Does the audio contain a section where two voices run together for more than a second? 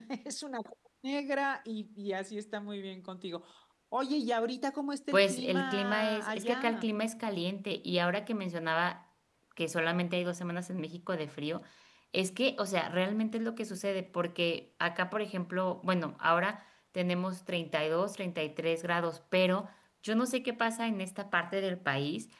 Yes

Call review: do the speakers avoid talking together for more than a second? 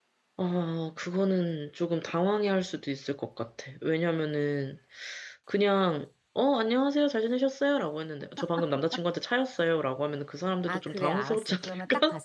No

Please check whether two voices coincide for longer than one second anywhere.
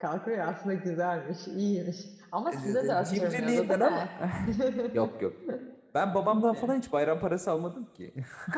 Yes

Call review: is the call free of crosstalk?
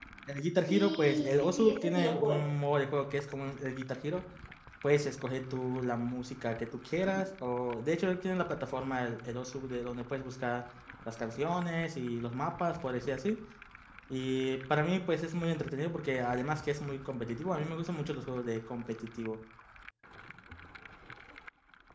No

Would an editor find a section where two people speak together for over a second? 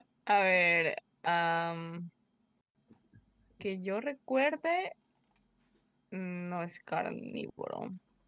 No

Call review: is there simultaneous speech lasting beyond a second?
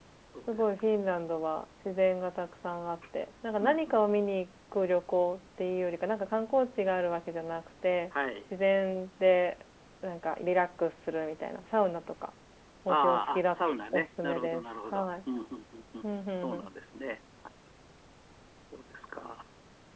Yes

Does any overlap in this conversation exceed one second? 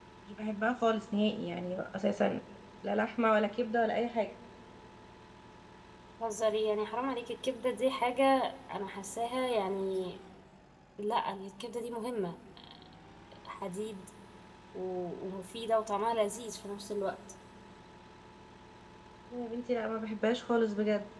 No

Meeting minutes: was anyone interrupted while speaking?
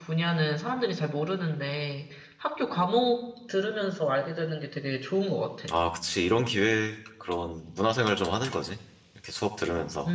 No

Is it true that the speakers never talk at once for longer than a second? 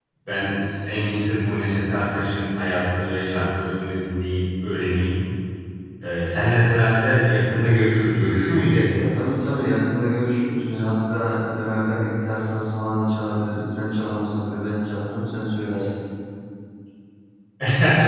Yes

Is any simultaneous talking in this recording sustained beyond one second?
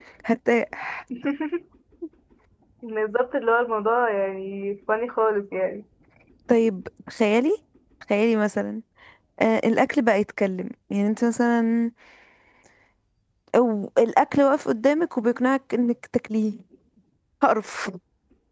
No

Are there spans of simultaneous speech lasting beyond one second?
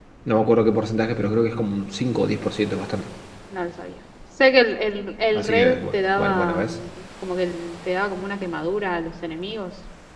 Yes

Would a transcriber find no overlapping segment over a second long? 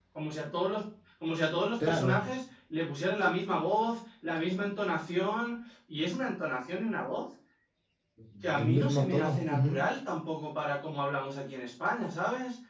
No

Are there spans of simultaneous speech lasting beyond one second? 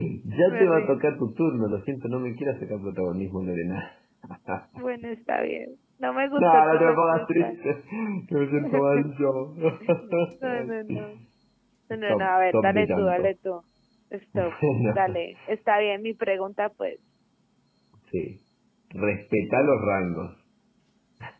Yes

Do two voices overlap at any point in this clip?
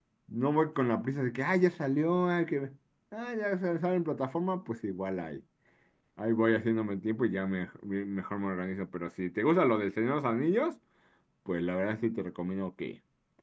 No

